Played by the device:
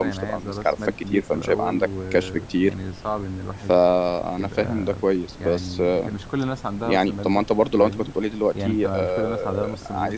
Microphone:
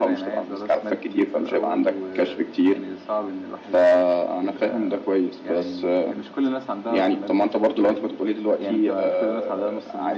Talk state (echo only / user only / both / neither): echo only